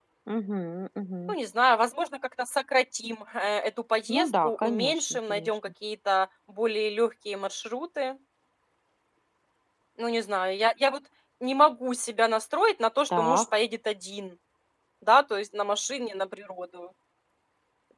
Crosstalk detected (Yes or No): Yes